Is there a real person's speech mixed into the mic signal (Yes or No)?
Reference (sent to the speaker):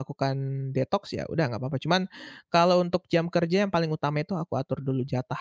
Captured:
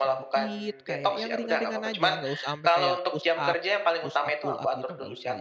Yes